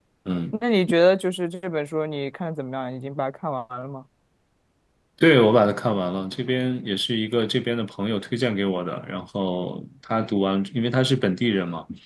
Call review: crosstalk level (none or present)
none